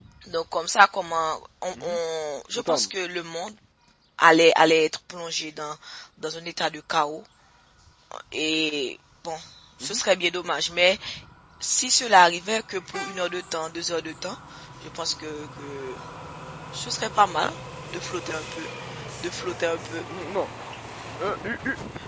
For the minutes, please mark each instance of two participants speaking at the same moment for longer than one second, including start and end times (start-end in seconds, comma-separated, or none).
none